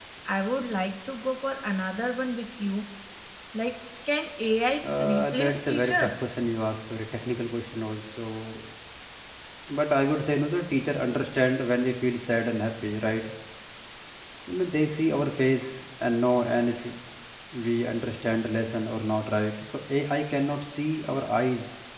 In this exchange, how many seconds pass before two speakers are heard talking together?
4.8 s

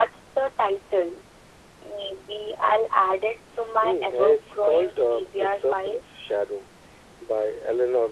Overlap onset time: 3.8 s

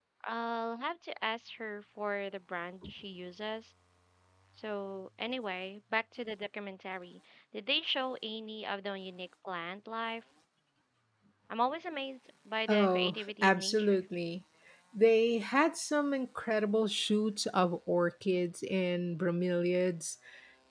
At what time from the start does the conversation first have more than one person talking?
12.7 s

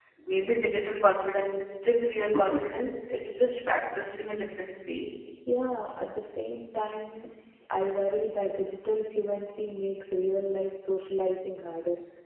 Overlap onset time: none

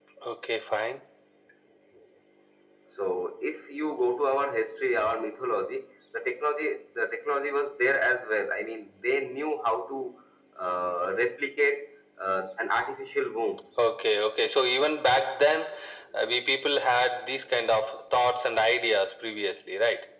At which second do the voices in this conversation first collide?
none

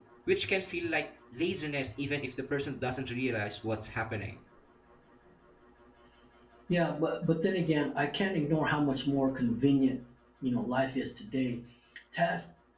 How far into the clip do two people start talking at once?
none

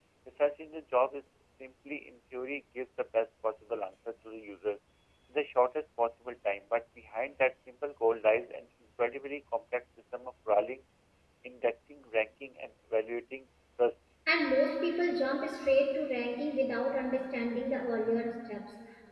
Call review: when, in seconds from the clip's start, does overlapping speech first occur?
none

